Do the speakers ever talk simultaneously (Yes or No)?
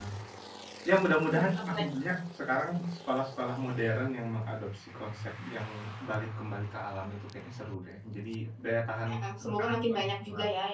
Yes